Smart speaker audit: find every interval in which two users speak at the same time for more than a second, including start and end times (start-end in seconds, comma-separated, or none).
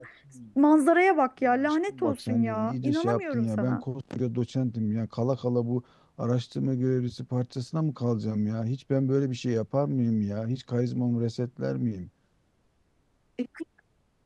1.4-3.8